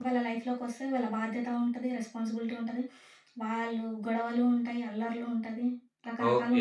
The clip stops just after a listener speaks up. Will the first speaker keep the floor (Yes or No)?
No